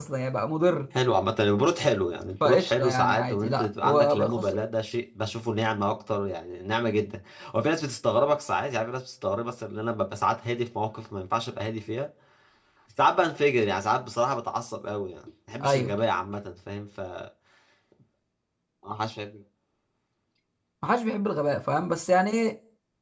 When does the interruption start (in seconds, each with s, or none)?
2.4 s